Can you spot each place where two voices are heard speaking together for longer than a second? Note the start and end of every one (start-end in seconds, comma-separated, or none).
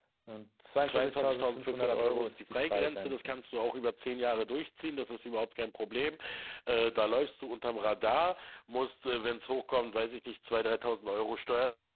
0.9-3.4